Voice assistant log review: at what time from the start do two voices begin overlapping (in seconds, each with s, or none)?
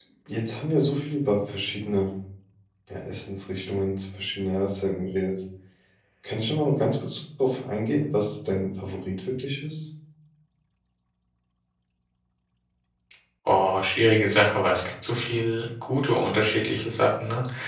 none